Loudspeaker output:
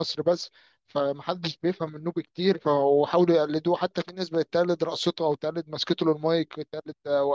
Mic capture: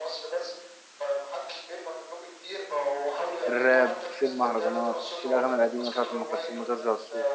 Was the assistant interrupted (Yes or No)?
Yes